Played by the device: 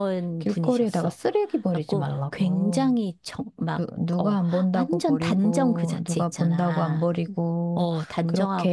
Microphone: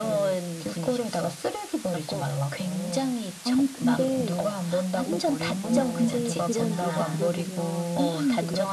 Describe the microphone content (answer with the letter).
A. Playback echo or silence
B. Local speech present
B